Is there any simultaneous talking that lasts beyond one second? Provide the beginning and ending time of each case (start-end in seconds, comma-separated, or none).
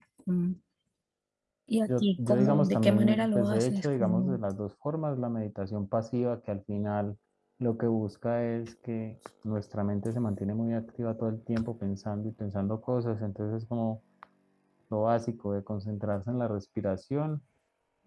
1.9-4.4